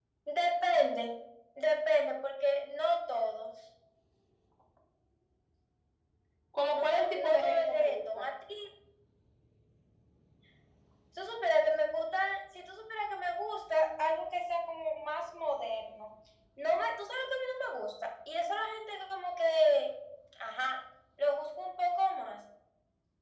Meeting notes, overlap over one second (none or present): present